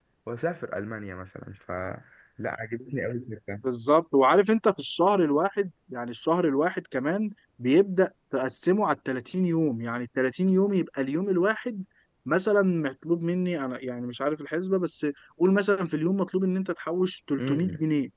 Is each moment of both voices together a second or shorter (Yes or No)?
Yes